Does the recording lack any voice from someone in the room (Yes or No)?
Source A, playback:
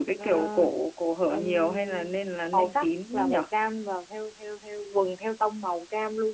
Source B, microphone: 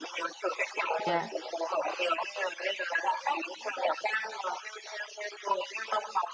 No